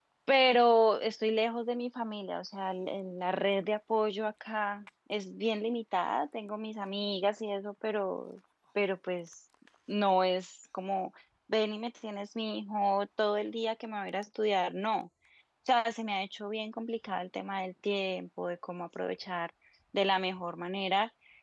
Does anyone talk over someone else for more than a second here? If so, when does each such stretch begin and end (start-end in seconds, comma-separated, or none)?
none